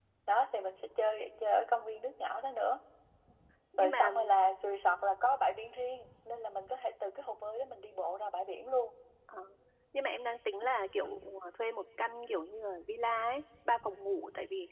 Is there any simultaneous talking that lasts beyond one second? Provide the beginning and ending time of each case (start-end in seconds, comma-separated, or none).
none